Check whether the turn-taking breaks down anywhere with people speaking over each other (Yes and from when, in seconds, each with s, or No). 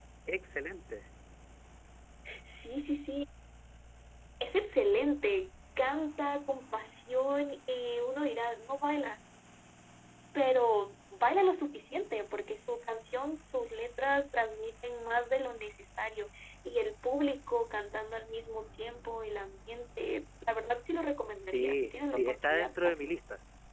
Yes, from 21.4 s